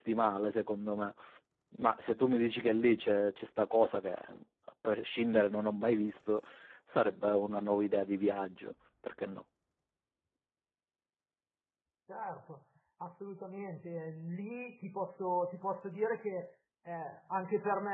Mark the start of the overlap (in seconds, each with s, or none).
none